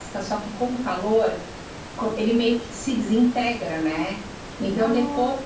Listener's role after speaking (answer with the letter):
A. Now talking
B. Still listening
B